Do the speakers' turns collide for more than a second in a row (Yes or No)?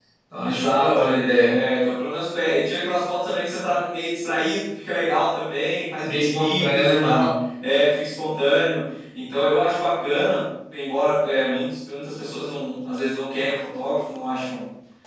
Yes